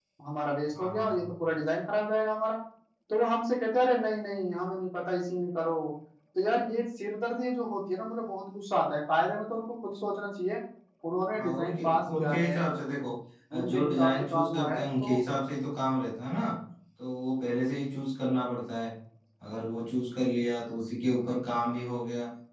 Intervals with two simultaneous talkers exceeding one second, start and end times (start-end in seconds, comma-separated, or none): 11.4-12.6, 13.6-15.1